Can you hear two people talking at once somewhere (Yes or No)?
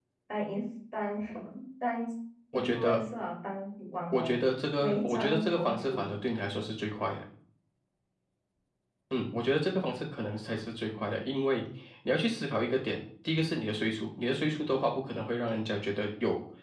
Yes